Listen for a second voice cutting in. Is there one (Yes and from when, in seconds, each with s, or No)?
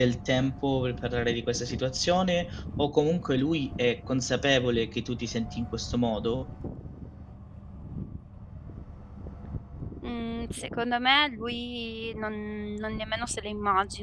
No